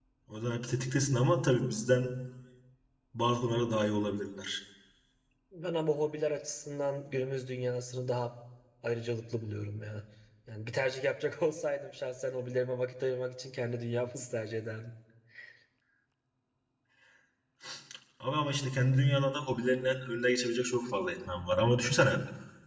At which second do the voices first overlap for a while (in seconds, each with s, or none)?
none